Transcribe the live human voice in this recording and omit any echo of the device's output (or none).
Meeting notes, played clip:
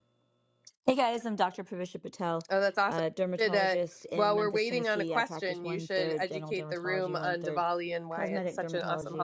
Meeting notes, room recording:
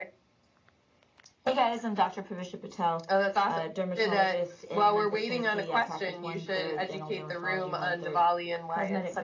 none